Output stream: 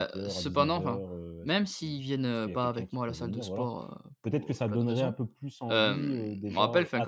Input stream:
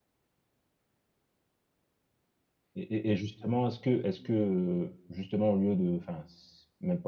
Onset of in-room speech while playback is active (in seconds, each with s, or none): 2.7 s